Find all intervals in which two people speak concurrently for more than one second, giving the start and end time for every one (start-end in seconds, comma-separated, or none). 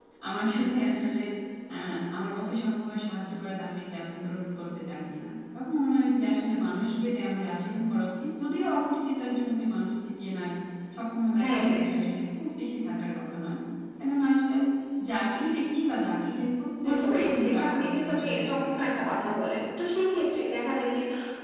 16.9-19.0